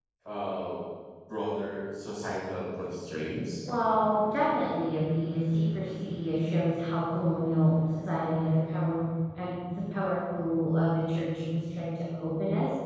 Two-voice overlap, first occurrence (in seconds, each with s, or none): none